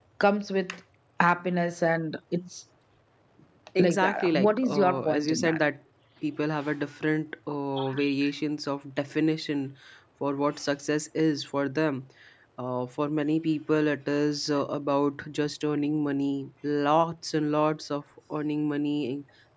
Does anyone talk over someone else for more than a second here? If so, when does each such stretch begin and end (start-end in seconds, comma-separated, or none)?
3.8-5.6